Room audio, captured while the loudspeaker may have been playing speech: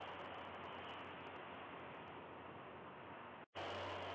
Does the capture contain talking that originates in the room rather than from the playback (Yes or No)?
No